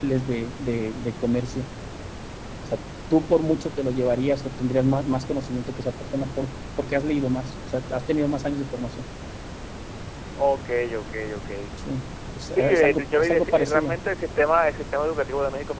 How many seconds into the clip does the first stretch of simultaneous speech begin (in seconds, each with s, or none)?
12.5 s